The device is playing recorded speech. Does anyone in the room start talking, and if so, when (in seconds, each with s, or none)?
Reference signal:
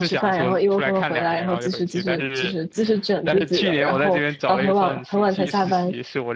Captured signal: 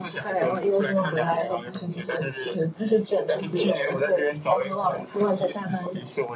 none